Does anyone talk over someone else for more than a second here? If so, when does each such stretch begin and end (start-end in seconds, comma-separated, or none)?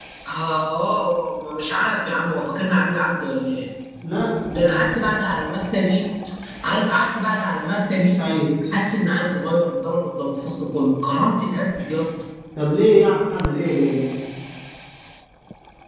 none